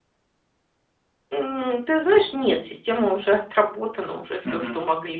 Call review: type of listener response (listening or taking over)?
listening